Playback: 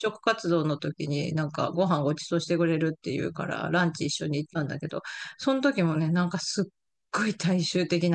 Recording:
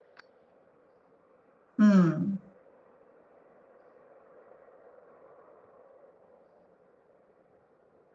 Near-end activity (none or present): present